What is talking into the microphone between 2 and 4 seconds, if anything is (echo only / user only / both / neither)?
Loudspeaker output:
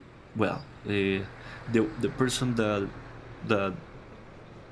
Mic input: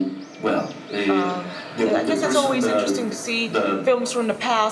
both